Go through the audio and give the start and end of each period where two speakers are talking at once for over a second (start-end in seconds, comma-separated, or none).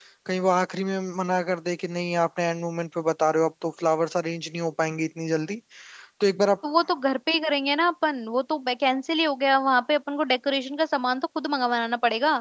none